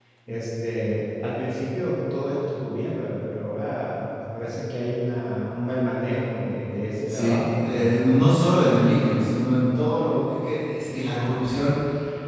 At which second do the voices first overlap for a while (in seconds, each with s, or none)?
7.1 s